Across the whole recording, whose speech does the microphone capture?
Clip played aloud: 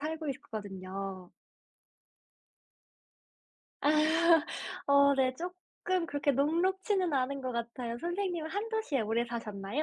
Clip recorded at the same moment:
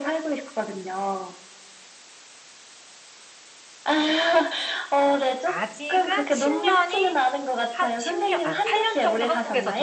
both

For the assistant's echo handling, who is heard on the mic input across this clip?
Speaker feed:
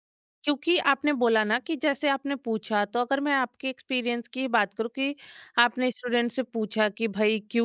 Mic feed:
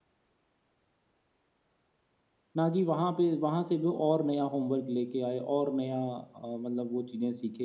user only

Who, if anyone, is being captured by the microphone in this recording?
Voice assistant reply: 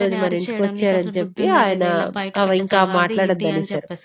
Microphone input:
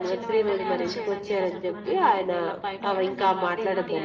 both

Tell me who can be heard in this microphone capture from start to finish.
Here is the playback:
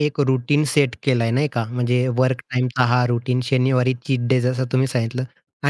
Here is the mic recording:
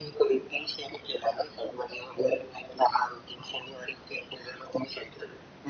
echo only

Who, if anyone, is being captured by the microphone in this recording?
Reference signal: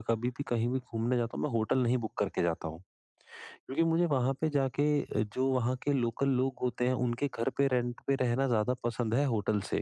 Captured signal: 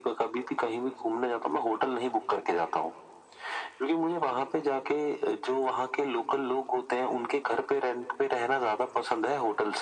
echo only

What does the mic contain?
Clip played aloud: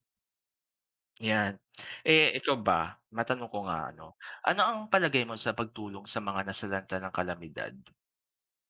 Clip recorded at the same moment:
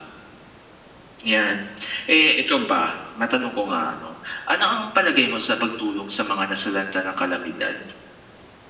echo only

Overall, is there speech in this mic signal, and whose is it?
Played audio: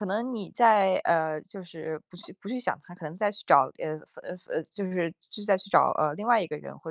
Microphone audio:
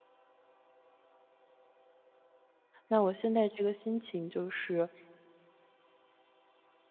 user only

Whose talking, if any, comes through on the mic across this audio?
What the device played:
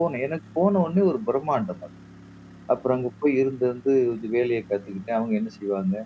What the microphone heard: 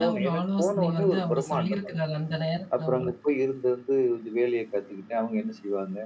both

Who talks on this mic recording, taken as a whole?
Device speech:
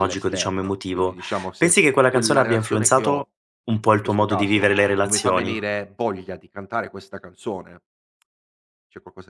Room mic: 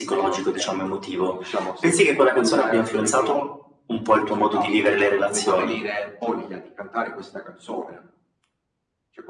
echo only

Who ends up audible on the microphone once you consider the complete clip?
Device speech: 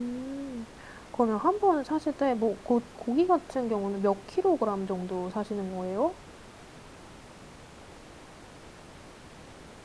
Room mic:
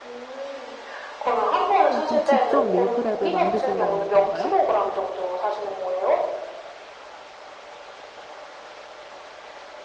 both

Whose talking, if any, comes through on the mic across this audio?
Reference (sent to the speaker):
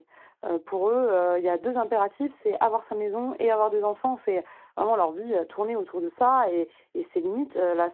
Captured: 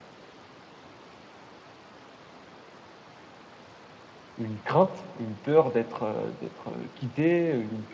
user only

